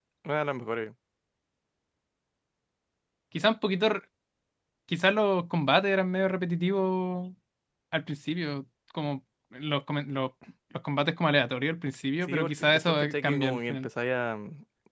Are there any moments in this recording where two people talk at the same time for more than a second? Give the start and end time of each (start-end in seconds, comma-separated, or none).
12.2-13.9